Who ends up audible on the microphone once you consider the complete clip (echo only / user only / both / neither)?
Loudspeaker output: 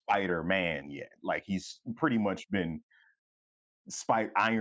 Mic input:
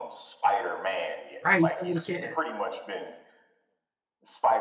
both